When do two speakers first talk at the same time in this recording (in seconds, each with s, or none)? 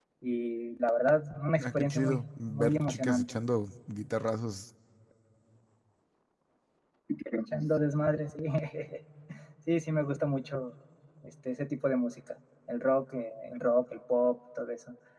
1.6 s